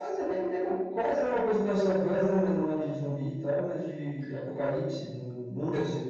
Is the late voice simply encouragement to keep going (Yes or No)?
No